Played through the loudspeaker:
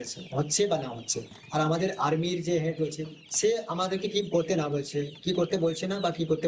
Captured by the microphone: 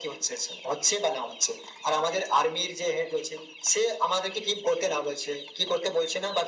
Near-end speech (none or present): none